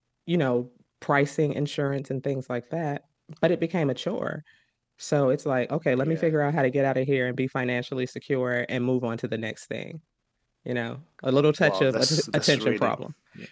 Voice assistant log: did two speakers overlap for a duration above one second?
Yes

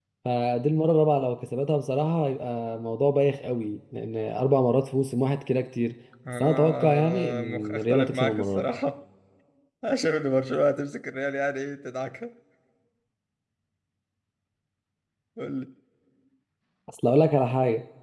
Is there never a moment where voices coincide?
No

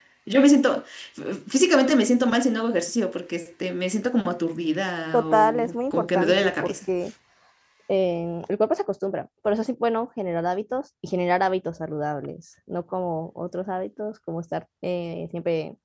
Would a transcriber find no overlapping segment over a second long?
No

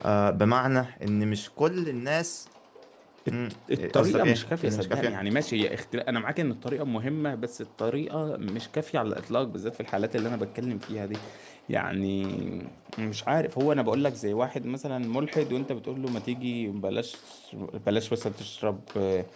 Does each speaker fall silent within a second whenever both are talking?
No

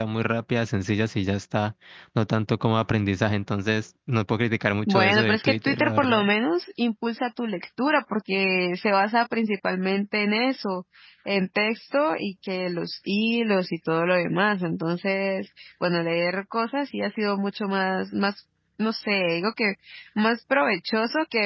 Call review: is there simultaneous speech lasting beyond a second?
Yes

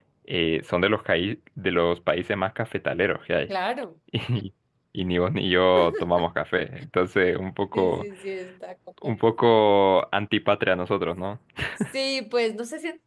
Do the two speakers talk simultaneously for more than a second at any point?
No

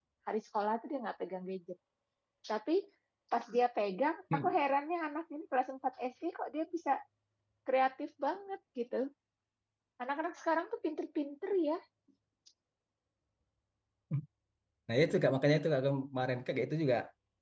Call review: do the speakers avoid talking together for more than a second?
Yes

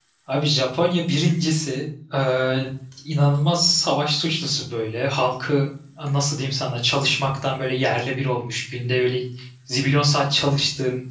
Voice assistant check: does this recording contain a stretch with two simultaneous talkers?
No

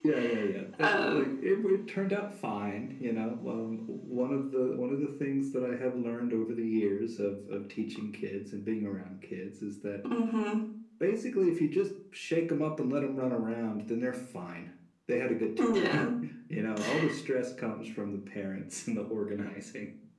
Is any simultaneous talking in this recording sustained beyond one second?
No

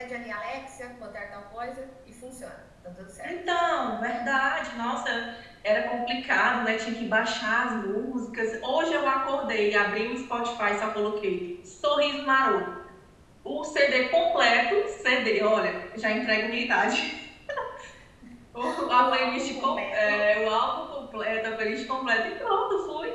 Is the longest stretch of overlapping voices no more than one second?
No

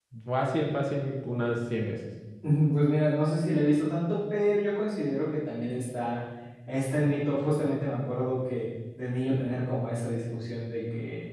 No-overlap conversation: Yes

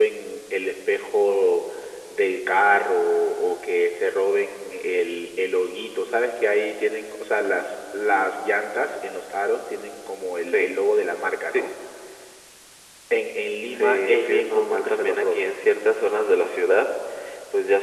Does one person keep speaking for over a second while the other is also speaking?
Yes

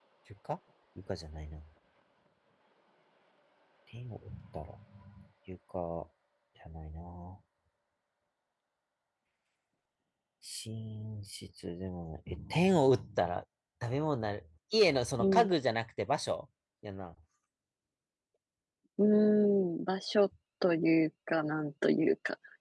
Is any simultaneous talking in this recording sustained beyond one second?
No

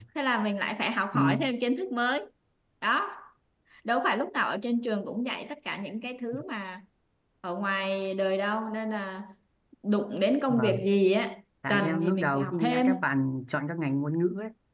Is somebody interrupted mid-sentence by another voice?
Yes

